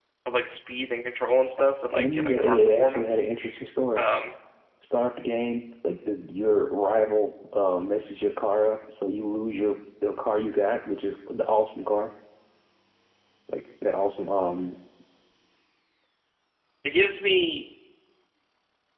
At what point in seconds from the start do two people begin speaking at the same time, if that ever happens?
1.9 s

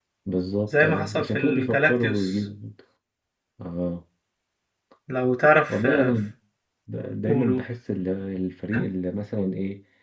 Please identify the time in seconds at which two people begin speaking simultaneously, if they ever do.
0.8 s

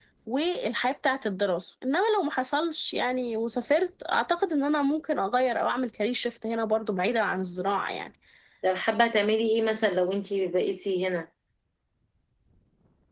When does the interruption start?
none

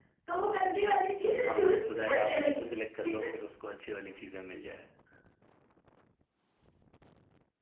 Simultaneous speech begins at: 1.4 s

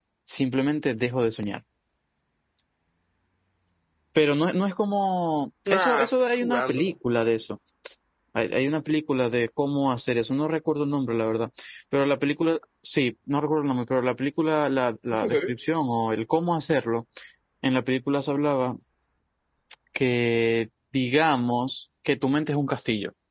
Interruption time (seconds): 5.7 s

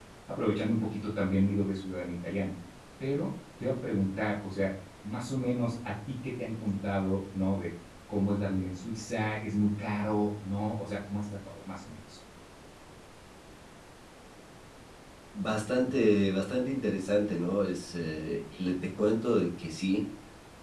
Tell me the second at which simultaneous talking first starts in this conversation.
none

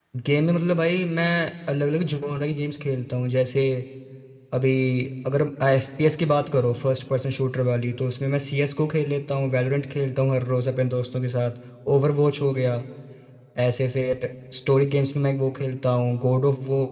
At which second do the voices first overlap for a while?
none

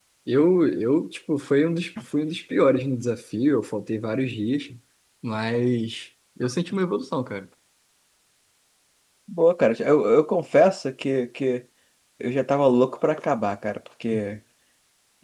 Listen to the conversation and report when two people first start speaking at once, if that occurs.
none

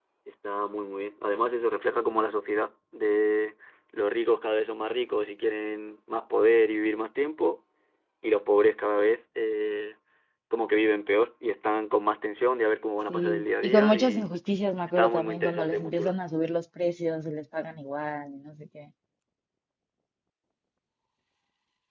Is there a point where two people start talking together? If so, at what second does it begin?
13.1 s

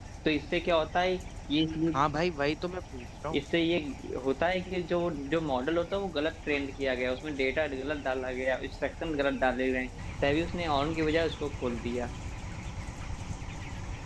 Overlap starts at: none

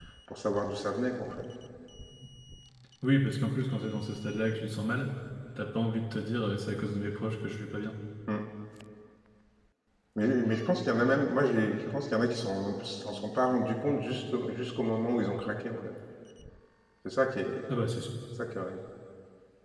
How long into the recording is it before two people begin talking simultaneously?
none

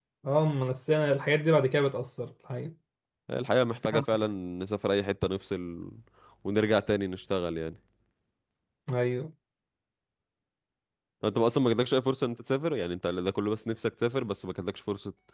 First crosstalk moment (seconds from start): none

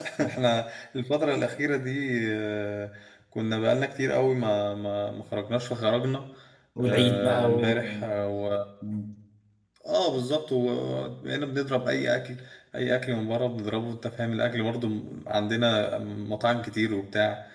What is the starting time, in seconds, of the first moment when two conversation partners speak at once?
6.8 s

